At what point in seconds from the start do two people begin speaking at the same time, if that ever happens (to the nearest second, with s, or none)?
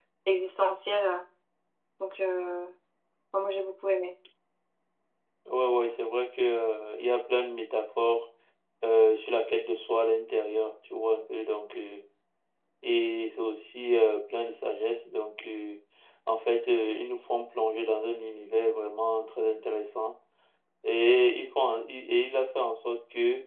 none